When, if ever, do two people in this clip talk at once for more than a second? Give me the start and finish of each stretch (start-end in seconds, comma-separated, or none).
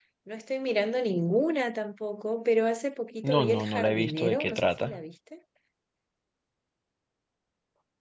3.3-5.0